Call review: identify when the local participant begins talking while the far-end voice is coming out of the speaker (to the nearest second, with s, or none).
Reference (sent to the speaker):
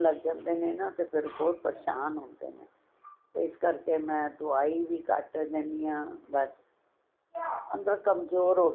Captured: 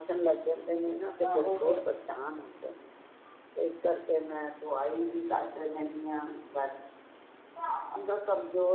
1 s